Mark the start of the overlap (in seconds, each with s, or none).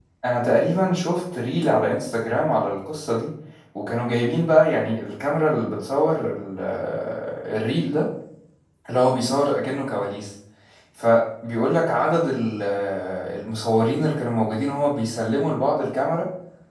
none